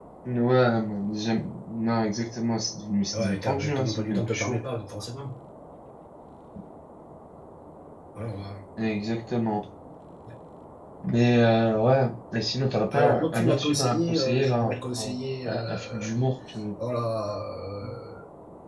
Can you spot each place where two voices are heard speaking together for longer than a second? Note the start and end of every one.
3.1-4.6, 12.9-16.1

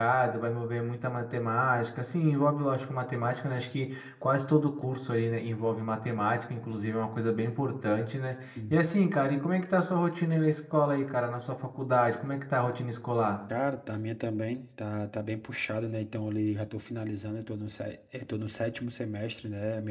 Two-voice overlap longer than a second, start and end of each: none

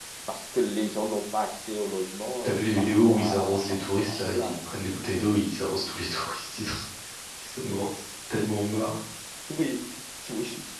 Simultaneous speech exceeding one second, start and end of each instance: 2.4-4.6

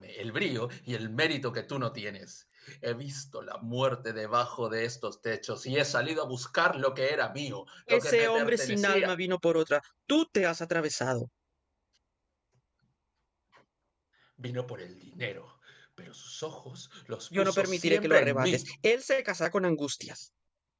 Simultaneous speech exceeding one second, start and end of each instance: 7.9-9.2, 17.4-18.7

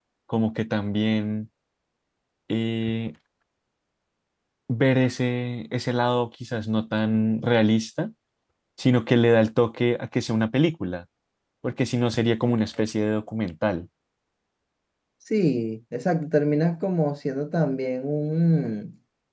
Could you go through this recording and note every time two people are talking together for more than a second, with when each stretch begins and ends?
none

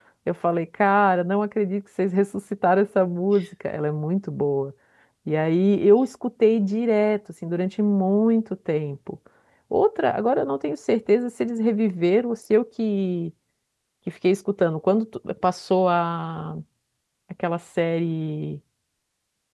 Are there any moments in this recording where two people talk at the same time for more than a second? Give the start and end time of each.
none

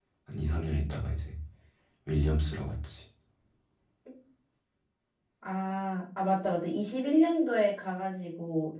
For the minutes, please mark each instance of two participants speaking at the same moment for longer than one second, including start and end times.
none

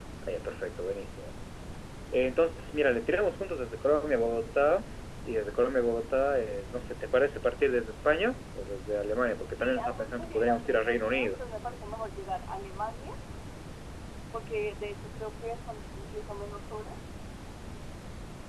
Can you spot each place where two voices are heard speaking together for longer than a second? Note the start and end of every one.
9.6-11.3

